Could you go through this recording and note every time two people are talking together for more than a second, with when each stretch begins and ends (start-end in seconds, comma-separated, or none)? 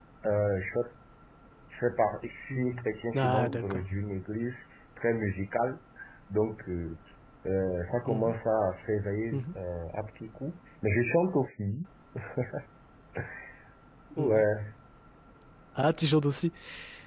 2.5-3.8